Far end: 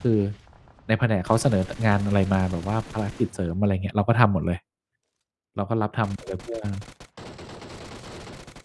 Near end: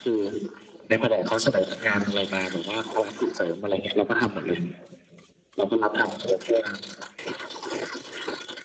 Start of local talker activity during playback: none

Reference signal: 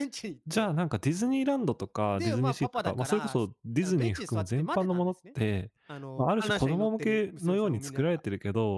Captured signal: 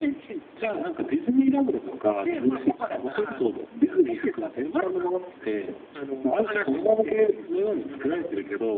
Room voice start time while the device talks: none

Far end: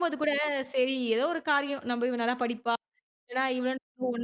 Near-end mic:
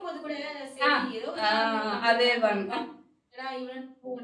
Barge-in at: 0.9 s

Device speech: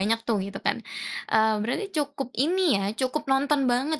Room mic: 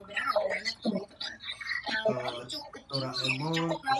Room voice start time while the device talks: 2.1 s

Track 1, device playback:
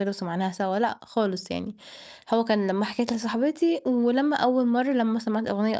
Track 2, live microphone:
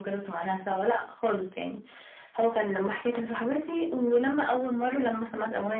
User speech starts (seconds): none

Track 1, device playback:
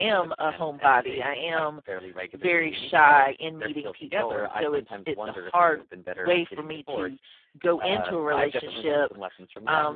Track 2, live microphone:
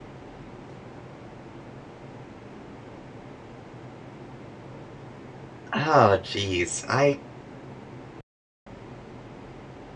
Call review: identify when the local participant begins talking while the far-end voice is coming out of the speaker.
5.7 s

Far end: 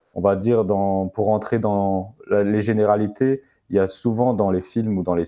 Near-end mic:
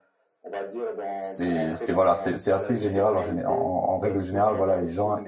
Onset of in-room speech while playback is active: 1.2 s

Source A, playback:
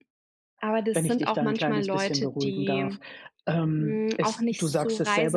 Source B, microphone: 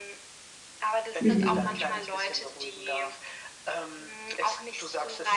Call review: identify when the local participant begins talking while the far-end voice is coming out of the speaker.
1.2 s

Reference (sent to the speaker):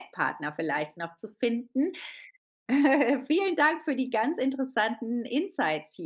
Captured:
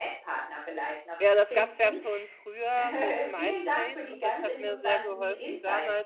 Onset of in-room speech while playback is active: 1.2 s

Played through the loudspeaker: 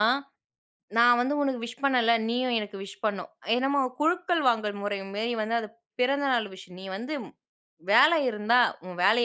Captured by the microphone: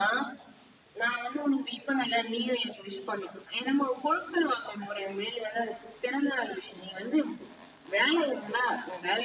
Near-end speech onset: none

